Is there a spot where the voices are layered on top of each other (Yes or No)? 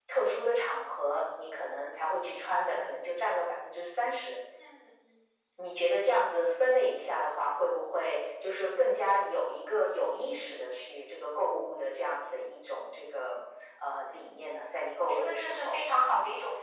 Yes